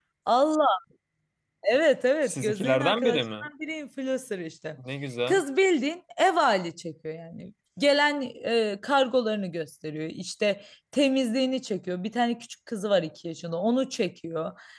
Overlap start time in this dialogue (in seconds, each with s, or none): 2.2 s